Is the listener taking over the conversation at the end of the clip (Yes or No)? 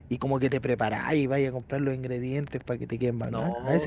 Yes